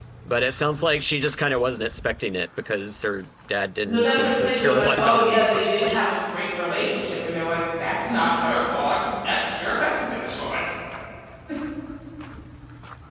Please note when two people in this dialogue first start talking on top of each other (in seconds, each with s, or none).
3.8 s